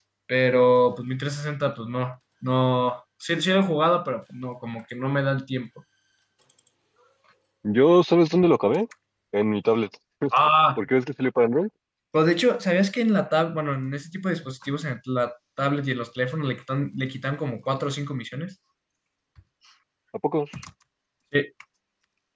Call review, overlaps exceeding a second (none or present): none